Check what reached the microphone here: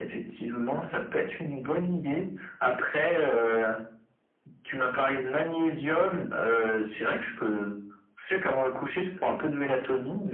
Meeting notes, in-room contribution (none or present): none